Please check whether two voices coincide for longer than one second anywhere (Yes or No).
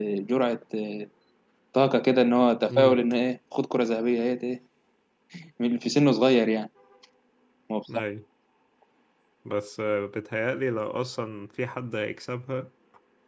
No